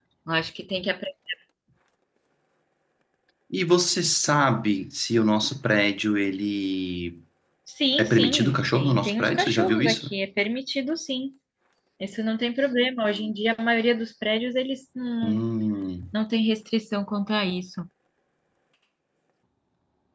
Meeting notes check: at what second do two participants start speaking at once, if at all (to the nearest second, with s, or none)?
8 s